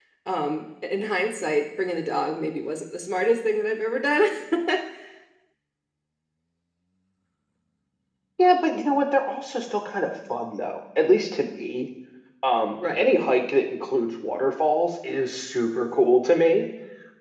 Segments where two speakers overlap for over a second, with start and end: none

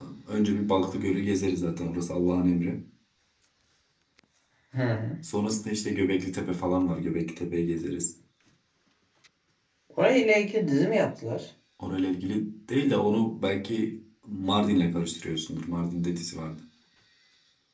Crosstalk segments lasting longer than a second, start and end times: none

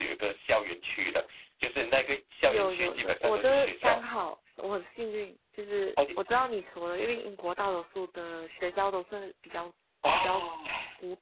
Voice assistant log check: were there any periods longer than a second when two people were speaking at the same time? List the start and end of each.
2.5-4.0

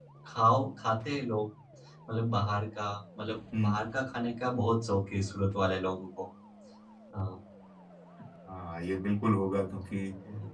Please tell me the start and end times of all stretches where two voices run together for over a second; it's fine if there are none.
none

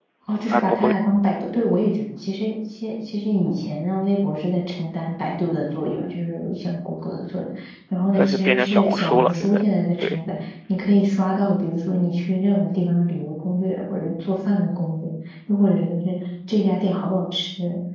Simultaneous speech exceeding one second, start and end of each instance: 8.2-9.6

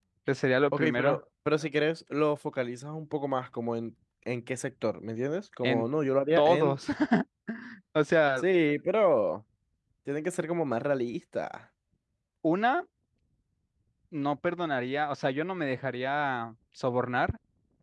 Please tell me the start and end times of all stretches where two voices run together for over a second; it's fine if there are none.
none

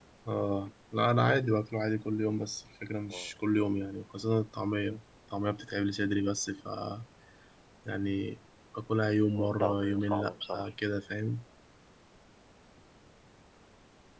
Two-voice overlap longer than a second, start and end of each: 9.3-10.7

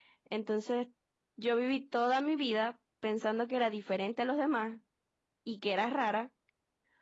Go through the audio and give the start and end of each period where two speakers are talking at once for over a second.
none

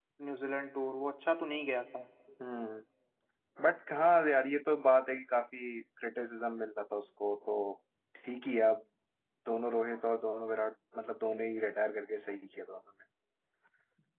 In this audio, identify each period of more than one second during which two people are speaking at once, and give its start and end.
none

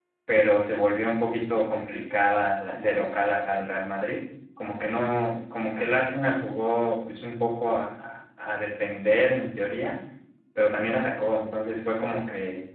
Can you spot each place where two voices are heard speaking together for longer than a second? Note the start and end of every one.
none

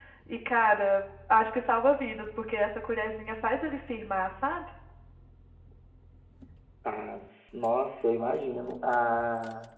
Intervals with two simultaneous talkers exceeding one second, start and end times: none

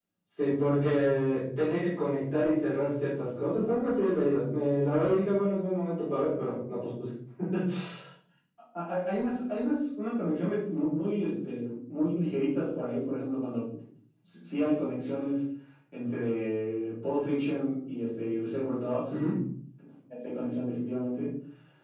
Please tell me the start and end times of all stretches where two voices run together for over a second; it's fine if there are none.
none

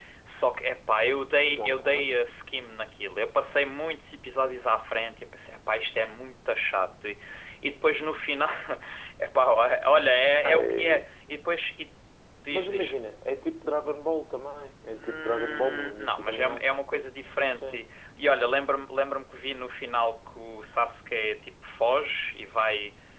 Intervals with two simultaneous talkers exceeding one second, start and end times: 15.0-16.6

